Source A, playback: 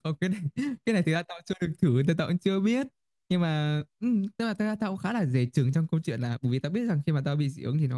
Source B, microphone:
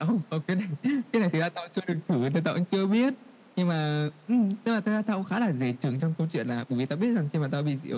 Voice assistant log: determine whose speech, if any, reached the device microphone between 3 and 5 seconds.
echo only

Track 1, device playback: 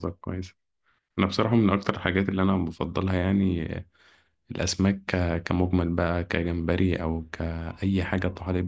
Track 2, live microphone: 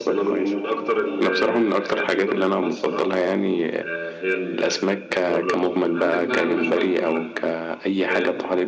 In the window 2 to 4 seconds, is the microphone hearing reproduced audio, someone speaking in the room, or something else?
both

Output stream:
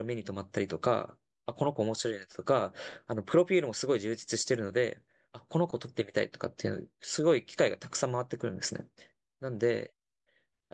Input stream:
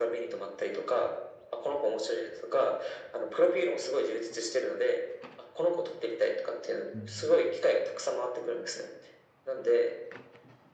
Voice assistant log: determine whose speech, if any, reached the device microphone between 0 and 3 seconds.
echo only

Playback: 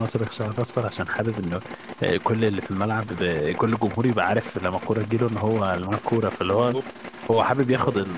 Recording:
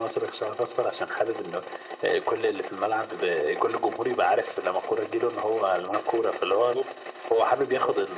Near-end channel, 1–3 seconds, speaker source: echo only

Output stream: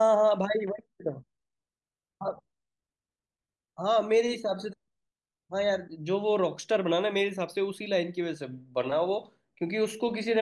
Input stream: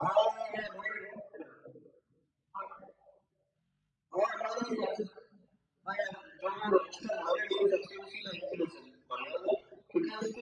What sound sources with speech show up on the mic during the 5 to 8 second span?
echo only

